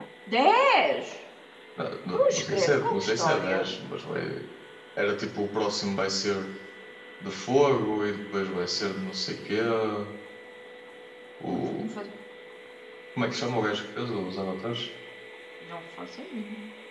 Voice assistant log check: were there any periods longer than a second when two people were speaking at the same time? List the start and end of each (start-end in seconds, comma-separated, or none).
2.1-3.7